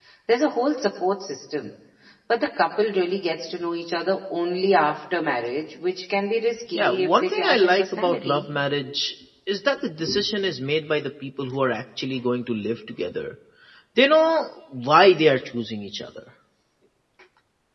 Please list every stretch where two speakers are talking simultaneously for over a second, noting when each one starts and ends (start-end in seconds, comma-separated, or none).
6.8-8.4